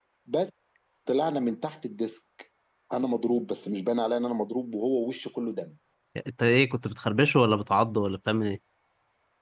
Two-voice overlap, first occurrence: none

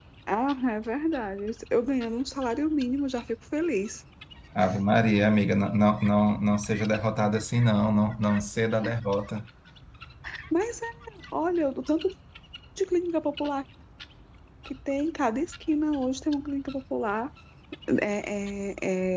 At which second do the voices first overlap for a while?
none

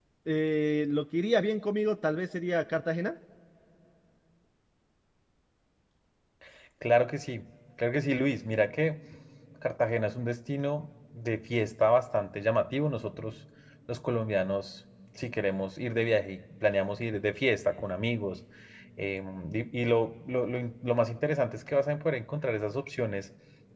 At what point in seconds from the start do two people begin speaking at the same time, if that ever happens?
none

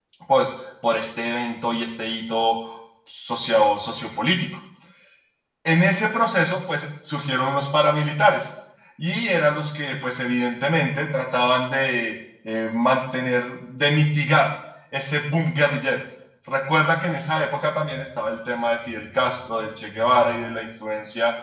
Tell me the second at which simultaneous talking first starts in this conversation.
none

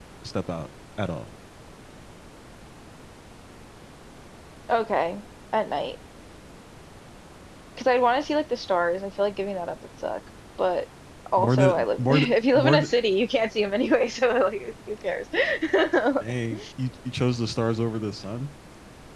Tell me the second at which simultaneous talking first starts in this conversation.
11.4 s

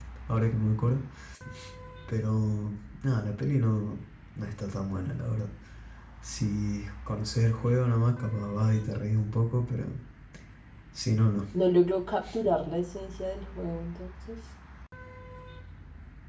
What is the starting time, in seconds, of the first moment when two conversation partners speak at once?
none

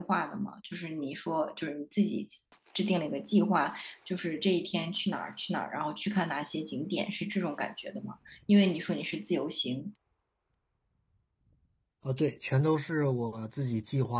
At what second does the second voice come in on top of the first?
none

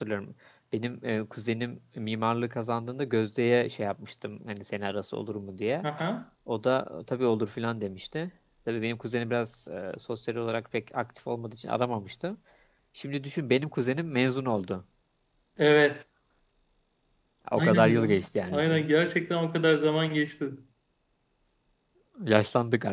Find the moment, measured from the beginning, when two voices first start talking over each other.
17.6 s

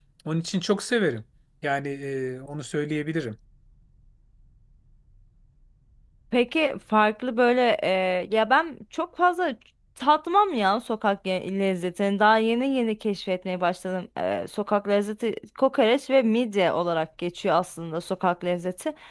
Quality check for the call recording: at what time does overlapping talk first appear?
none

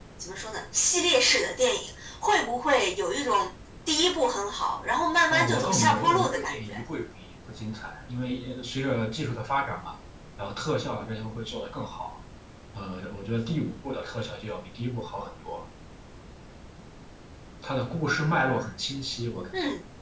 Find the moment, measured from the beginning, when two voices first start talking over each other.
5.3 s

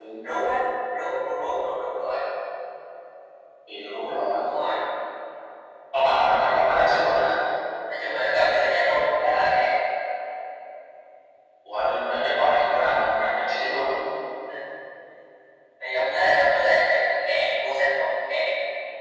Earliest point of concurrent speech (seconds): none

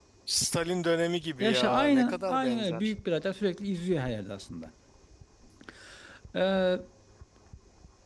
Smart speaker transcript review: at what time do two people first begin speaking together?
1.4 s

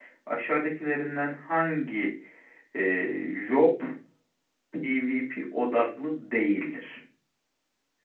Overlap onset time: none

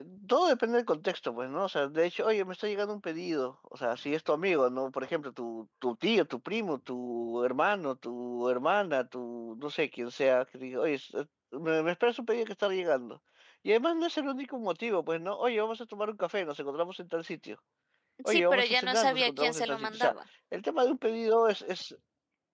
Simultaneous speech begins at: 18.3 s

